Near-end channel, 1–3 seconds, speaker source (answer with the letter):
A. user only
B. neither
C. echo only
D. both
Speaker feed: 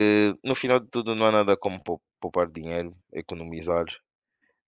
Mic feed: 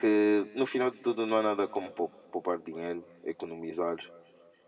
C